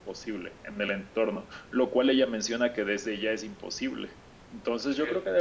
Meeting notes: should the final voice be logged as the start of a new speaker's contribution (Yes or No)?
No